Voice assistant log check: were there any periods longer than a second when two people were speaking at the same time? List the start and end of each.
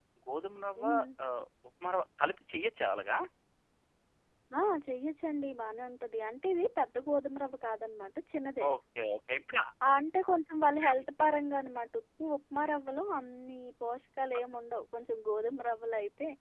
none

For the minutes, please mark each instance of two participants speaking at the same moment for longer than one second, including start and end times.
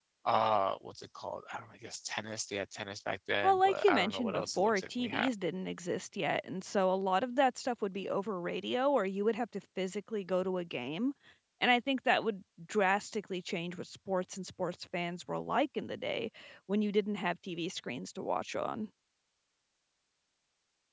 3.4-5.3

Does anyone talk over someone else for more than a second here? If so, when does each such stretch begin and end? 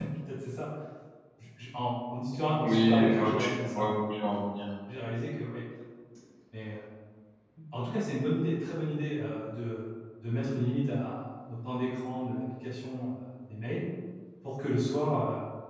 2.6-3.9

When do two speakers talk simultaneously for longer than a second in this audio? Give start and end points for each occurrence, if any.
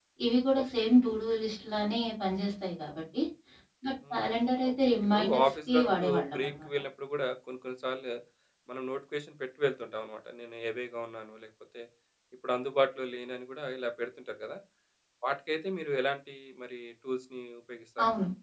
4.1-6.7

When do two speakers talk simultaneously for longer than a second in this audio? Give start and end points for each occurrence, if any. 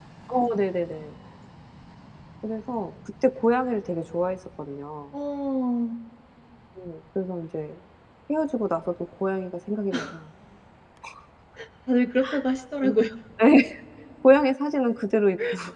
none

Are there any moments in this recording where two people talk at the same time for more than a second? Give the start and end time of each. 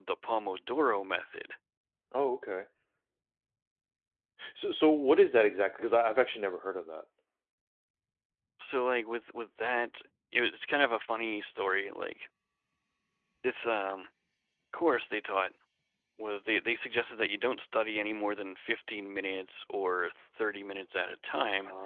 none

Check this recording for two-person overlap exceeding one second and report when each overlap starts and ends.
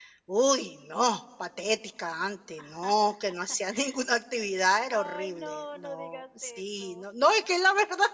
4.9-7.0

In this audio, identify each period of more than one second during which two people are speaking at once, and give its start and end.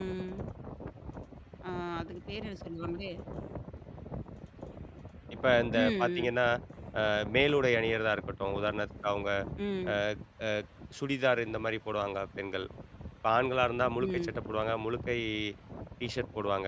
none

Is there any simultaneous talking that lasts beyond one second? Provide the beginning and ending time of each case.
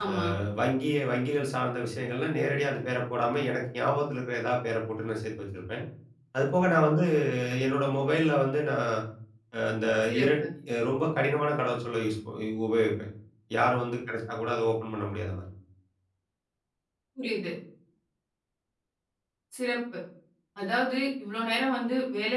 none

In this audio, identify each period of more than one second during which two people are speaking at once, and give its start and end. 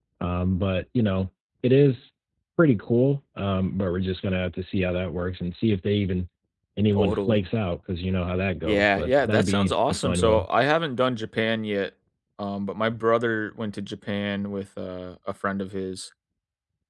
8.7-10.4

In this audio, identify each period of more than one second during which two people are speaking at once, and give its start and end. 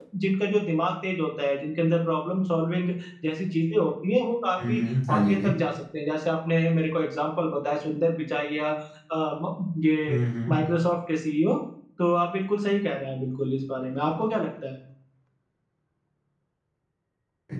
none

